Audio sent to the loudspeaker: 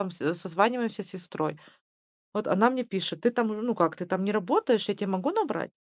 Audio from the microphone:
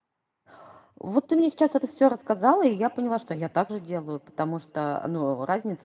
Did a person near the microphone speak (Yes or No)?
Yes